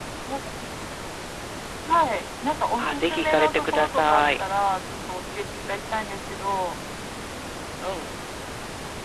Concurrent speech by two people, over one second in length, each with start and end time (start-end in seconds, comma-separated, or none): 2.8-4.4